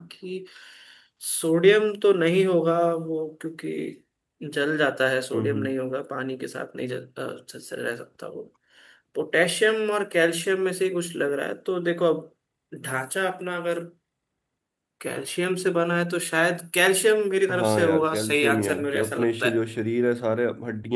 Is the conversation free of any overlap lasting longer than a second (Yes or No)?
No